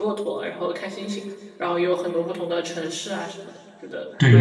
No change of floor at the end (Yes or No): No